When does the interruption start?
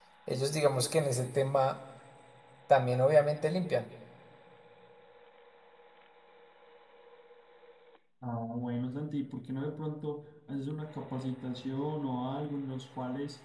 none

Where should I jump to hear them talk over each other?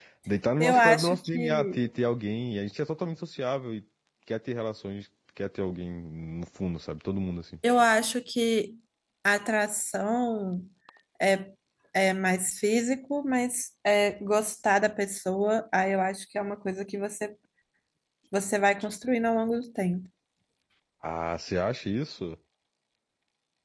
0.6 s

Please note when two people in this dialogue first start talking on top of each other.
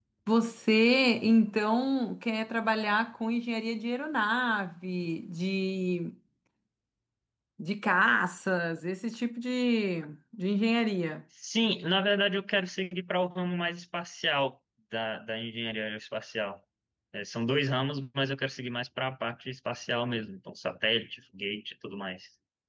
none

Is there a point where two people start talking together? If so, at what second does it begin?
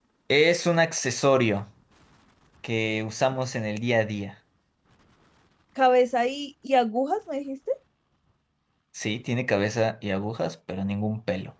none

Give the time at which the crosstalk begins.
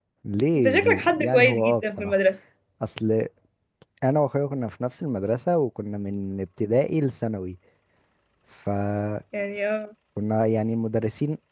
0.6 s

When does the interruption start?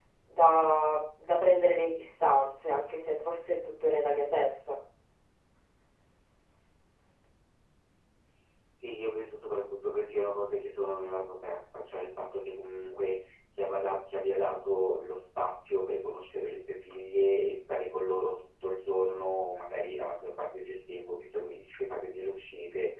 none

